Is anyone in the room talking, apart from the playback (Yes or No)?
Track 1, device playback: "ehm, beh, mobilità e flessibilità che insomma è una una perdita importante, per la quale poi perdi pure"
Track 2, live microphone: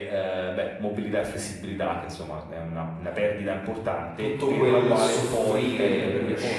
Yes